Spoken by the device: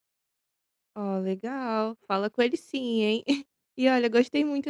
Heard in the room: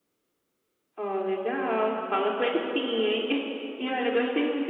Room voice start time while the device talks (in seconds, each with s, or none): none